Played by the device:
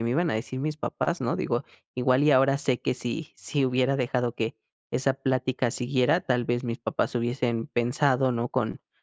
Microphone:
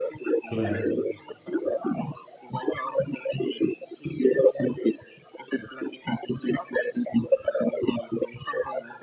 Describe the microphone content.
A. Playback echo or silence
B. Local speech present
B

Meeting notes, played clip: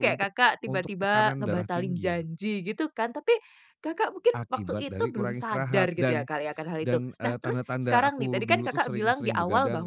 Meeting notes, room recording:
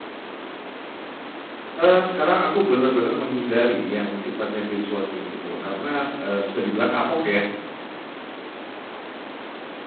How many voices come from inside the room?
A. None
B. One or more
B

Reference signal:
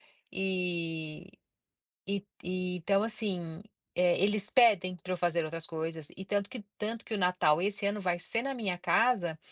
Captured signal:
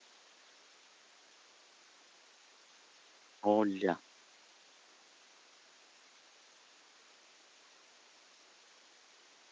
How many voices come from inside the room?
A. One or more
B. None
A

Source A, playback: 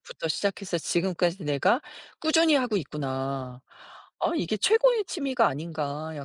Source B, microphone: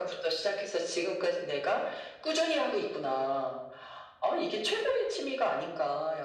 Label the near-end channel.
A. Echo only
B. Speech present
A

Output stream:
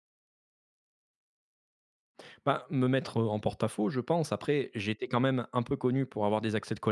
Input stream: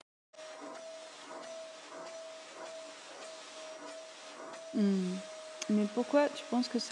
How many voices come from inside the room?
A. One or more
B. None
A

